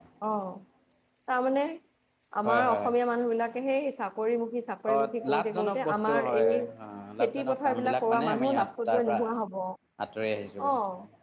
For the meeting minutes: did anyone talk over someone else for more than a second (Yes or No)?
Yes